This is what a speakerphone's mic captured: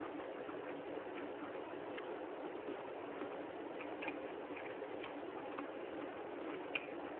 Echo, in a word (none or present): none